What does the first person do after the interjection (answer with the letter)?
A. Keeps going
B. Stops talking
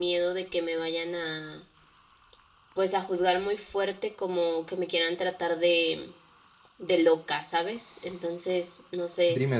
B